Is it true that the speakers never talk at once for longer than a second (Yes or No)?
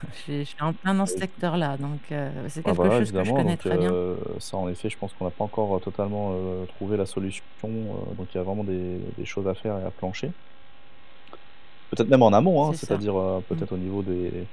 No